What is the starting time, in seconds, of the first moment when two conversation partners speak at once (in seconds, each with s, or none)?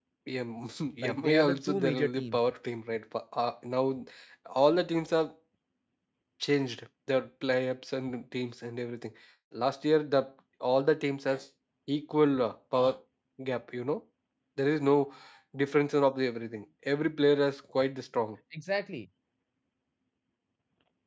1.1 s